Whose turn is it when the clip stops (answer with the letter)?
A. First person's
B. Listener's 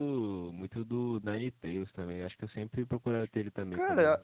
B